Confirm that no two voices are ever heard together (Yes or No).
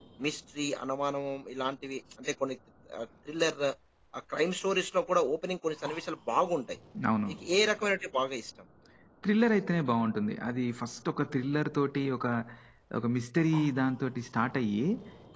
Yes